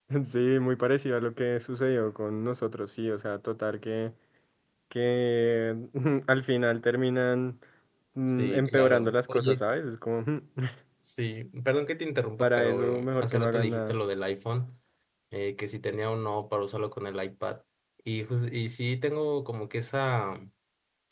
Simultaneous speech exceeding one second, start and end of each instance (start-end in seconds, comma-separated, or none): 8.3-9.6, 12.4-14.0